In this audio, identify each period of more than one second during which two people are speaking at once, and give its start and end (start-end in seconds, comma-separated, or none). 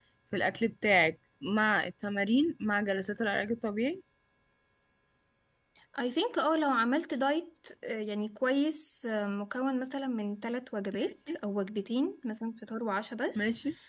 none